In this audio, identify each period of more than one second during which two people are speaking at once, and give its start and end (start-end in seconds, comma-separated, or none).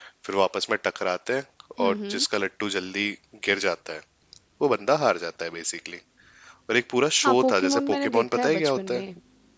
7.2-9.0